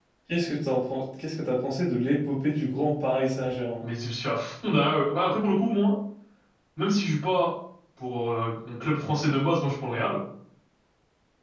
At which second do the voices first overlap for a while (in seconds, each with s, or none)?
none